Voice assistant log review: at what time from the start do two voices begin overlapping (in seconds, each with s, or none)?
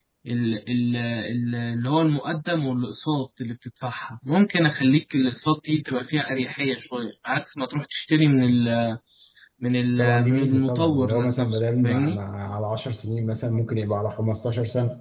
10.0 s